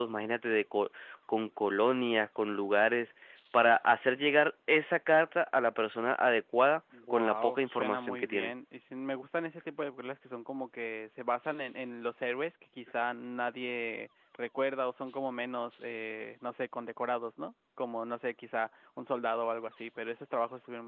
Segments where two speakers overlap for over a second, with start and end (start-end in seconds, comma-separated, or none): 7.1-8.5